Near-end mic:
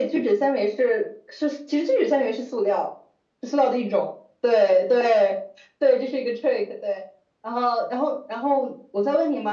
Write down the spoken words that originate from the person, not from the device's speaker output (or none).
none